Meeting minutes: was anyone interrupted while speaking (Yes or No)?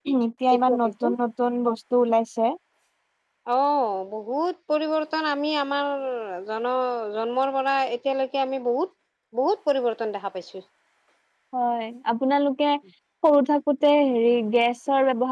No